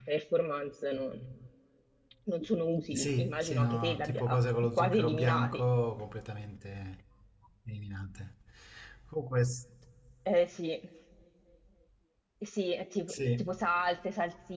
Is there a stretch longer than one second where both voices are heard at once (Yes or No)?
Yes